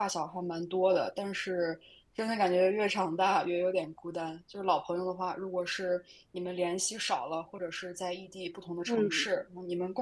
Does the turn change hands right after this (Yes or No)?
No